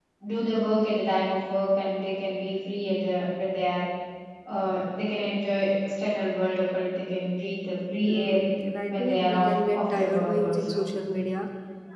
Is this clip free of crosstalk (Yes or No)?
No